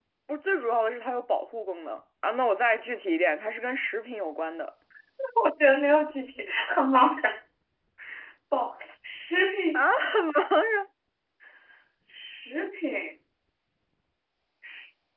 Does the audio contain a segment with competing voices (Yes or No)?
No